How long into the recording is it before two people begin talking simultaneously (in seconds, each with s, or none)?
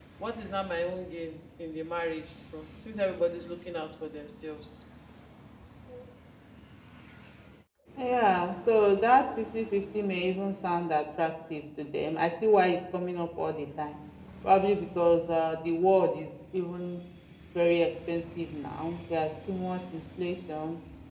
none